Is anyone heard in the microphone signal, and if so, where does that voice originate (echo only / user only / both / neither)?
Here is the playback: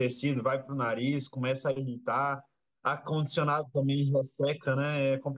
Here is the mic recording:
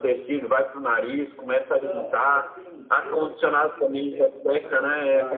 both